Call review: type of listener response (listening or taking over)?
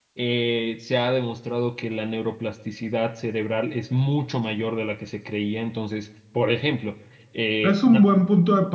taking over